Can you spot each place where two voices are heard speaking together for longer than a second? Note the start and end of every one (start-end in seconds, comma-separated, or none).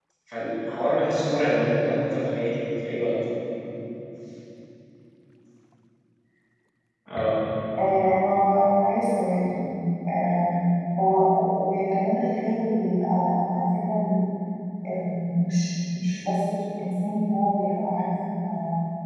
none